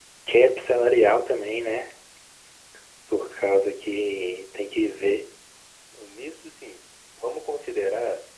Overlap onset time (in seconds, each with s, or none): none